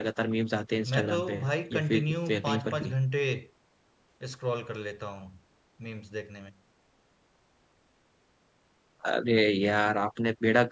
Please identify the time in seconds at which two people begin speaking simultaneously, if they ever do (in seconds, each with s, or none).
0.9 s